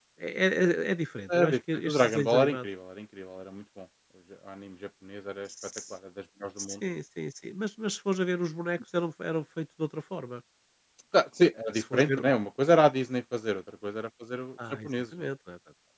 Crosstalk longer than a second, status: present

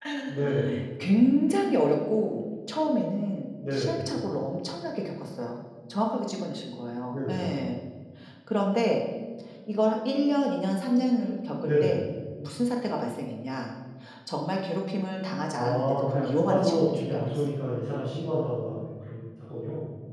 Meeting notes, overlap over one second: present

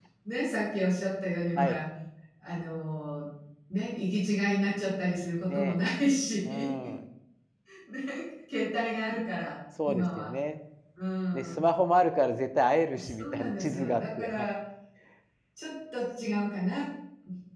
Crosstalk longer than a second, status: present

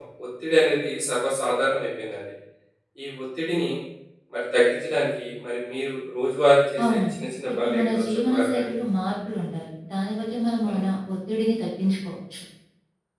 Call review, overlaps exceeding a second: present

